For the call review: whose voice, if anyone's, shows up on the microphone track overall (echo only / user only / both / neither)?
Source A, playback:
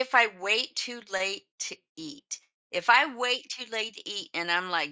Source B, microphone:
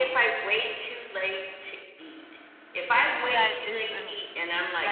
both